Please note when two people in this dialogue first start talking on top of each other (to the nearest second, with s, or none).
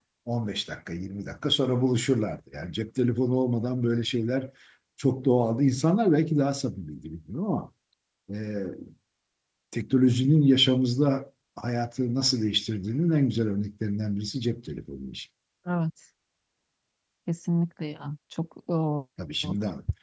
none